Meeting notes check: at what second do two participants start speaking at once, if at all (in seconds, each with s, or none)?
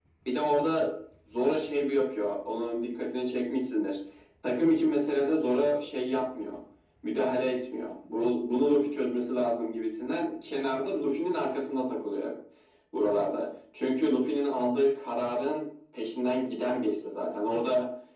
none